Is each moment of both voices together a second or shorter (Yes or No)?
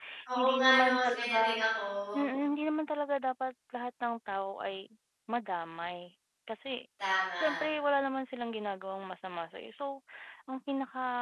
No